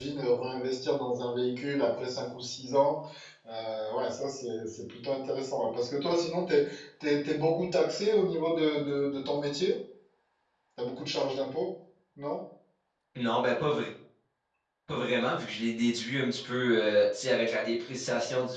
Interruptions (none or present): none